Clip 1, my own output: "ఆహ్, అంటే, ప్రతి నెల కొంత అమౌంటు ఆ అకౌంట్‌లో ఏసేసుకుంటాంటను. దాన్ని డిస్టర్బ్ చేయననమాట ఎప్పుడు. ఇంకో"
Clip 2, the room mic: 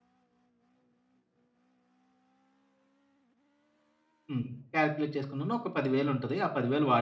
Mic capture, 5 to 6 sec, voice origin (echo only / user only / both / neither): user only